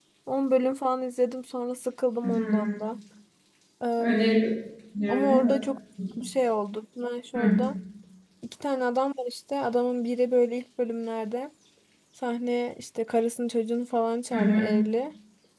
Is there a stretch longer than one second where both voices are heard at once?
No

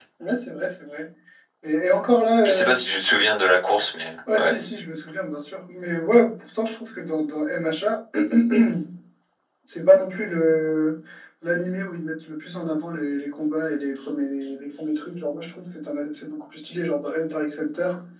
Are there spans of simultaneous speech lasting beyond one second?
No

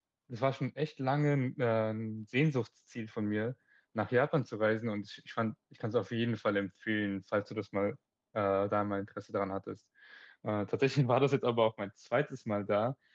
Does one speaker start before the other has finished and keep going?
No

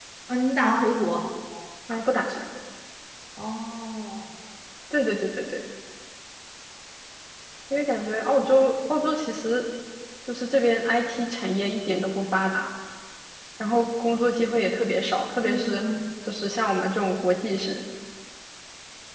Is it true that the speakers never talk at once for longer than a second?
Yes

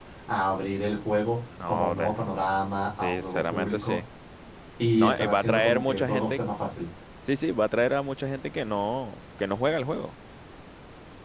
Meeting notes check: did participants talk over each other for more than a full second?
Yes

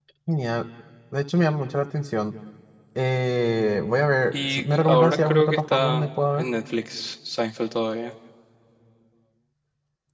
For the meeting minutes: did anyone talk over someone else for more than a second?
Yes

